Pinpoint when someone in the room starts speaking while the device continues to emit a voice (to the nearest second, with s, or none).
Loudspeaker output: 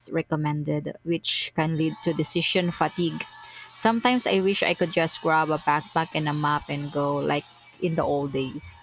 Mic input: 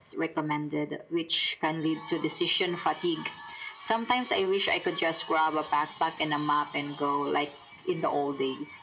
none